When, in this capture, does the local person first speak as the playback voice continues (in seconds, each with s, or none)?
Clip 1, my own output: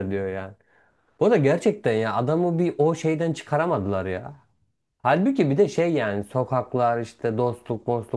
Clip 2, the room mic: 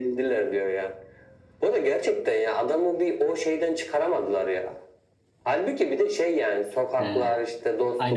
7.0 s